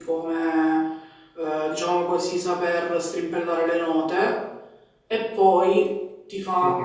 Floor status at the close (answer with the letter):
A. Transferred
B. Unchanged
A